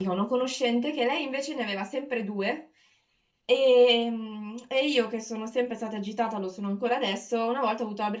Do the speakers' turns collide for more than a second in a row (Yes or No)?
No